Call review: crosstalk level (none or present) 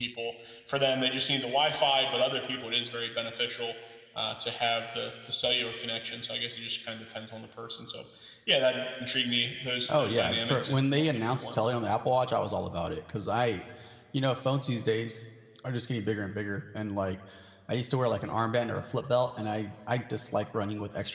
present